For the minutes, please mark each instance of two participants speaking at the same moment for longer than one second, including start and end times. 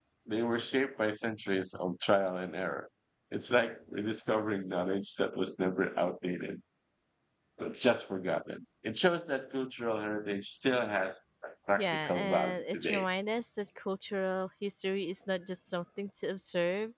11.8-13.0

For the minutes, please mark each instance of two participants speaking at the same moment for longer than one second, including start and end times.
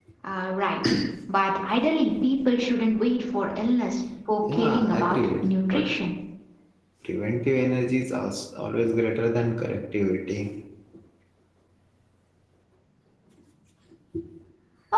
4.5-5.9

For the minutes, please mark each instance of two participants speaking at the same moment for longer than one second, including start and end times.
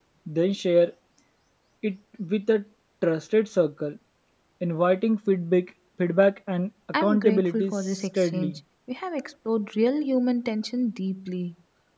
7.0-8.6

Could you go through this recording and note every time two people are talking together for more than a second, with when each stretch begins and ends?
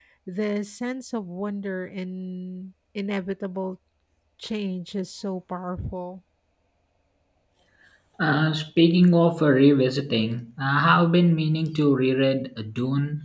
none

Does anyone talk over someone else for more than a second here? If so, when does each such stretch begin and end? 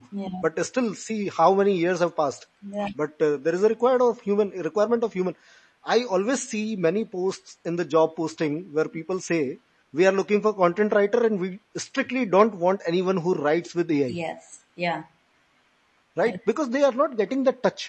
none

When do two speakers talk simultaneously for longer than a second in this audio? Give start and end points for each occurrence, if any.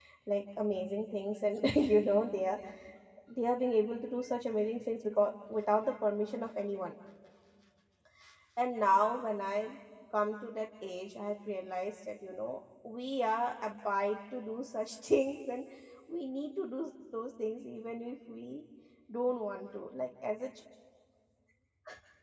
none

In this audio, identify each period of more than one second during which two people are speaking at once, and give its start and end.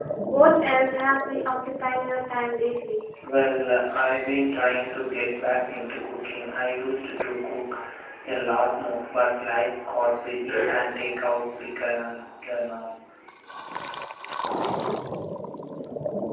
none

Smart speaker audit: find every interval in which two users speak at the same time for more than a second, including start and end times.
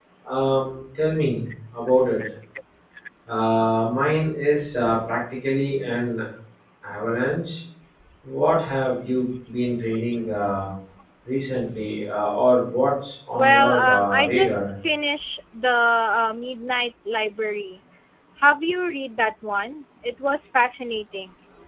13.3-14.6

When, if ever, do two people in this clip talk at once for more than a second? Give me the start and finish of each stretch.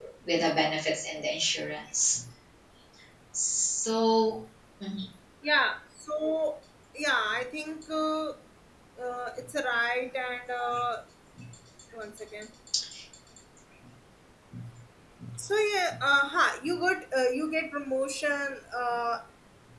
none

